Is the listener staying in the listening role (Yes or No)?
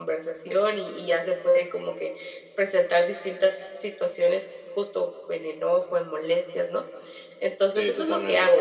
Yes